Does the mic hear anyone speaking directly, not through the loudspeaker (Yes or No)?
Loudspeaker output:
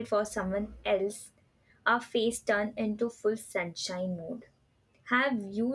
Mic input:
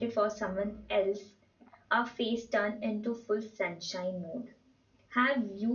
No